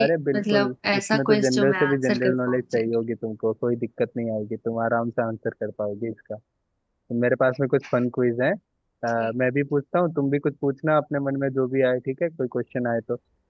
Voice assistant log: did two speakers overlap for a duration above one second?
Yes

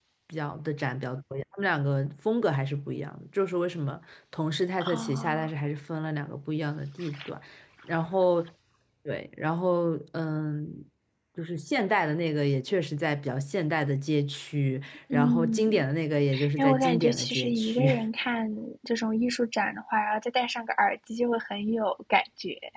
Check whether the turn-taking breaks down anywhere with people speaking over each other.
Yes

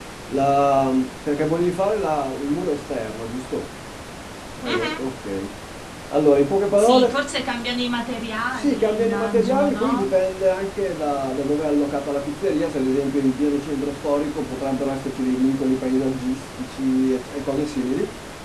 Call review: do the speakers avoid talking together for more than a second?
No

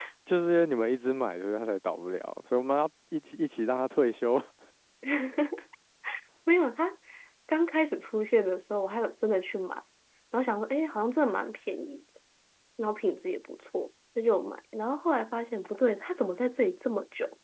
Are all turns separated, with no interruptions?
Yes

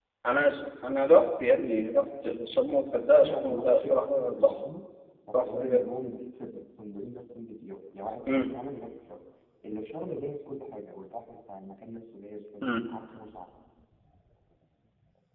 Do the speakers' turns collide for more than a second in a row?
Yes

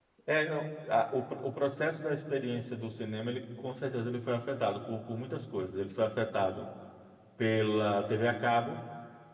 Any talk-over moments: No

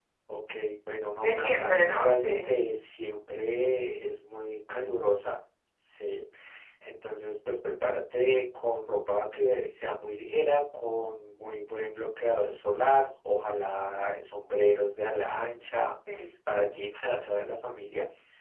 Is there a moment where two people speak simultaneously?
Yes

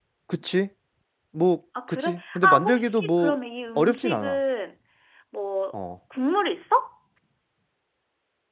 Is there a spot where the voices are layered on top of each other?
Yes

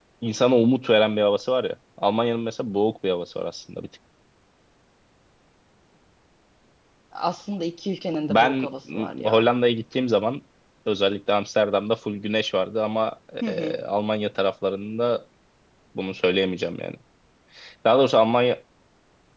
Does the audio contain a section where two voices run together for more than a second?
Yes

